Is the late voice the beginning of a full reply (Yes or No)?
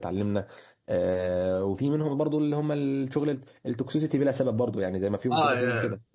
Yes